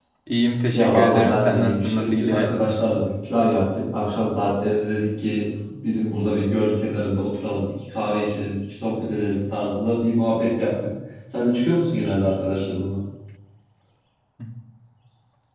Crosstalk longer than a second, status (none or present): present